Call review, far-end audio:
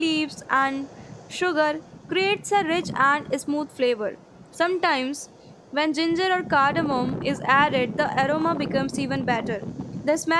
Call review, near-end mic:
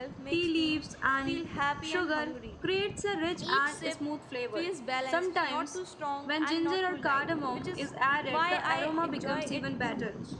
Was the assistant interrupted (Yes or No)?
Yes